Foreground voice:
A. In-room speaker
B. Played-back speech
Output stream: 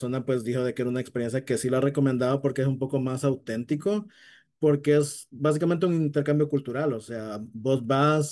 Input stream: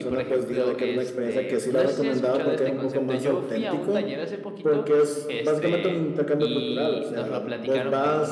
B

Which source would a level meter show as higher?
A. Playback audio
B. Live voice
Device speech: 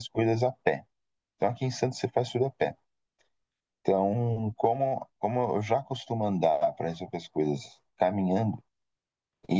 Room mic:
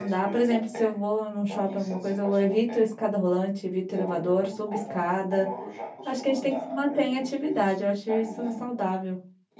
B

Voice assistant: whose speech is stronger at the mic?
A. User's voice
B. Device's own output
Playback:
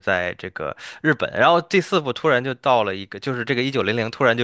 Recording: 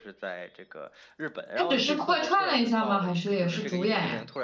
A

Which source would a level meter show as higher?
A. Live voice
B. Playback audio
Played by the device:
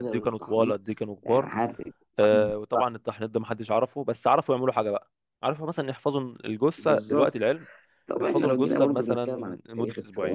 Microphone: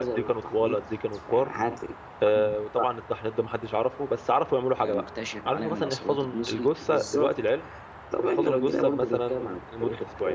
B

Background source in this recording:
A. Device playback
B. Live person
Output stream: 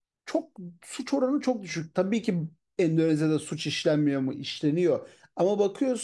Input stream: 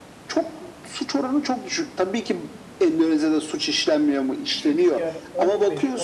B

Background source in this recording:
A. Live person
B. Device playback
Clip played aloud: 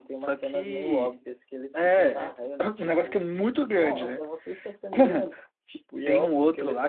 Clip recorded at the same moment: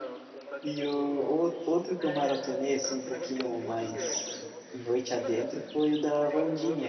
B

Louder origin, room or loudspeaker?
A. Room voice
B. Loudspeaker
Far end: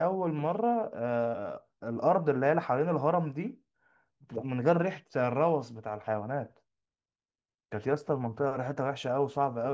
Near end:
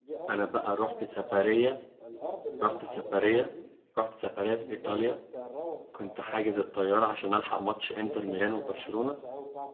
A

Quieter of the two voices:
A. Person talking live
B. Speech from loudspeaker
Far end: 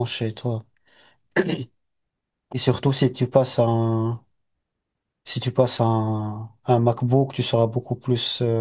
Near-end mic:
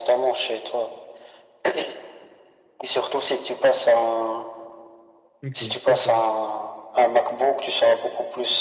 A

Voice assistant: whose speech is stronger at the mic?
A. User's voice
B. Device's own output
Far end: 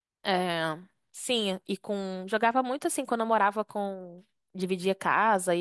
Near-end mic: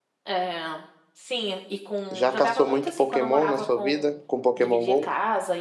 A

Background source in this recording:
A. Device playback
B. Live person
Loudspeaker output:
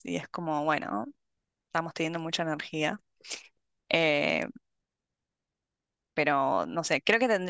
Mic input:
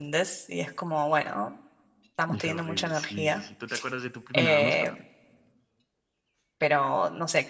B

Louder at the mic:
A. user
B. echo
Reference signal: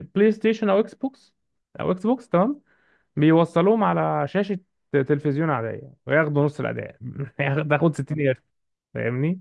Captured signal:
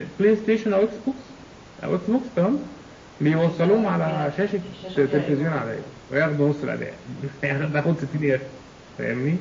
B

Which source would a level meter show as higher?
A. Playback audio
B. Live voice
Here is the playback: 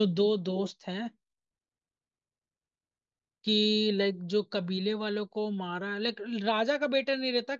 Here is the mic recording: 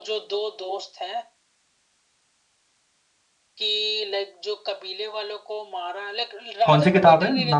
B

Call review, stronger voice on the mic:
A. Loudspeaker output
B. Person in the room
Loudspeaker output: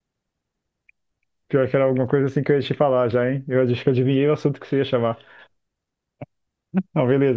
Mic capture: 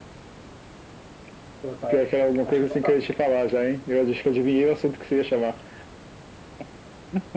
A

